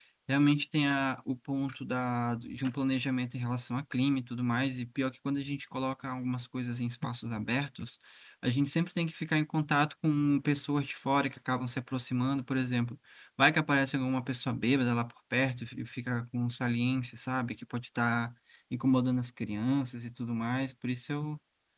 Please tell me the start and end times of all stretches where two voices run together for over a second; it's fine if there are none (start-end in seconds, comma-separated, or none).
none